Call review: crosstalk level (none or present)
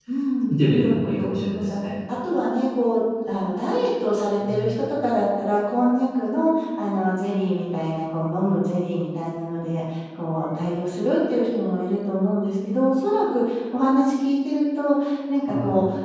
present